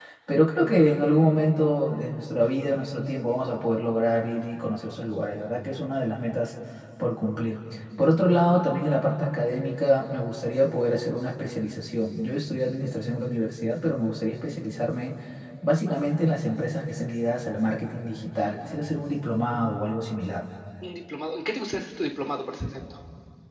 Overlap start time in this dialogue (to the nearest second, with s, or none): none